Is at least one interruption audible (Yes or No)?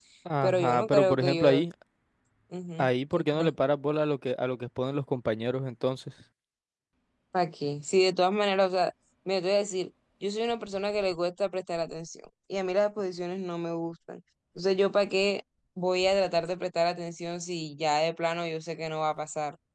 Yes